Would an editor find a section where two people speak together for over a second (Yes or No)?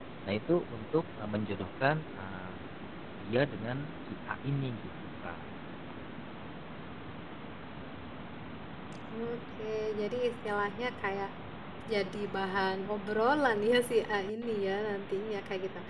No